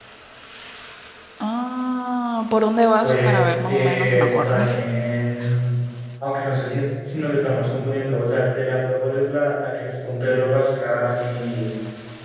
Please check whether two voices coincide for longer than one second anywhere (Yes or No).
Yes